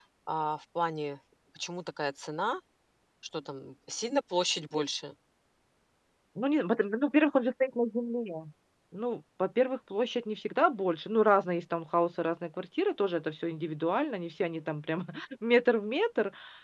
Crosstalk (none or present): none